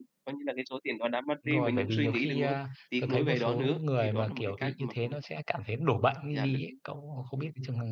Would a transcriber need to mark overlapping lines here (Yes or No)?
Yes